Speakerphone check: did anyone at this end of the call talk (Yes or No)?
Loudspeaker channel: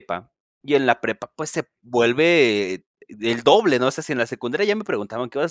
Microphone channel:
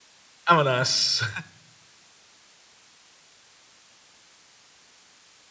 Yes